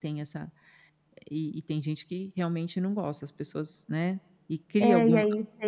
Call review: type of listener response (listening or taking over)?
taking over